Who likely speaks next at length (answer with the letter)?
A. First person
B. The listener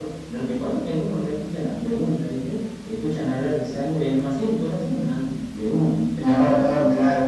B